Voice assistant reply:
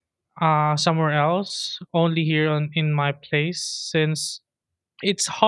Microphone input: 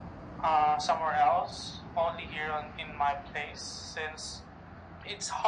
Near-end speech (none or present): none